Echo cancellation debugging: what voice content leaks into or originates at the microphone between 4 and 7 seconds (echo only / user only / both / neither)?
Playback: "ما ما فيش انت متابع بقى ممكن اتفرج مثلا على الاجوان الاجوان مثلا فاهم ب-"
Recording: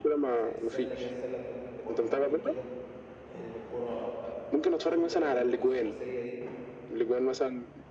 both